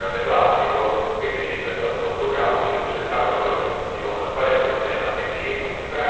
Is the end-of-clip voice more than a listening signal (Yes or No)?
No